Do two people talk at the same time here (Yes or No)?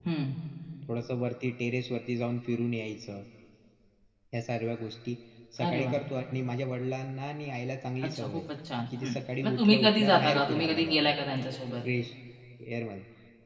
Yes